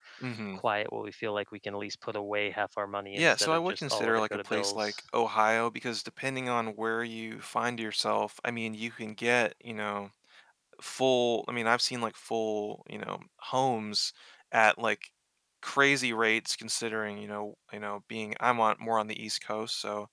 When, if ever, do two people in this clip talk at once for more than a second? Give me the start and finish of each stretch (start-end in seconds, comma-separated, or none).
3.1-4.9